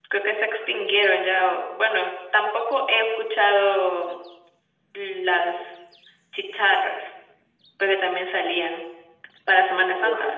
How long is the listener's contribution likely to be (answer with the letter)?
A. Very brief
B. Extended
B